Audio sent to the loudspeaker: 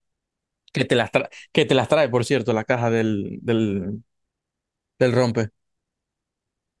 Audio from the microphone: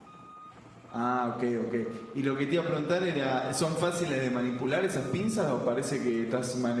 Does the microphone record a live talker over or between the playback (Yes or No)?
Yes